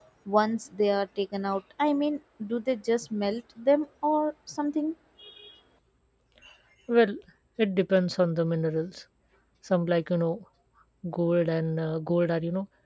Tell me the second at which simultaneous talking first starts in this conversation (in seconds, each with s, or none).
none